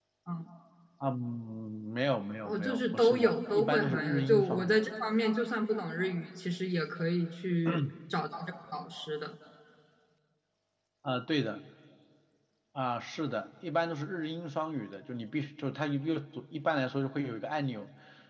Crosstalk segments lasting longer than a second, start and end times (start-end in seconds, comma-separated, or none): 2.5-4.8